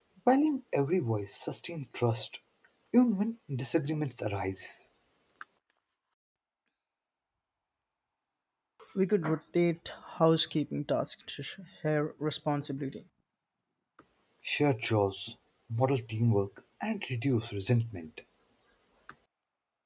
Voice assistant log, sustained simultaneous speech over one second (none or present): none